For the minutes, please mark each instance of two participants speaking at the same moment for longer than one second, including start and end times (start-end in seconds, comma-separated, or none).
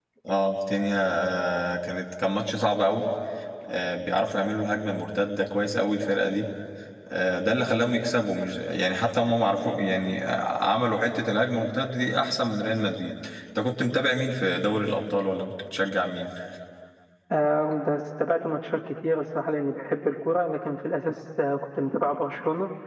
none